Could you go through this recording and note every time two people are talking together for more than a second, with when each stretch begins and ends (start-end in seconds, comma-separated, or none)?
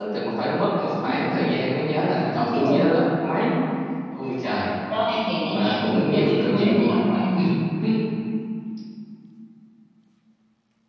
5.5-7.0